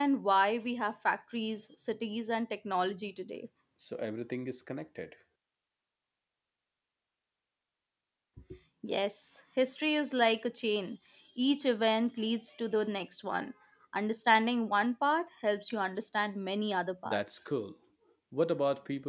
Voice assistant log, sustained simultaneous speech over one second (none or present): none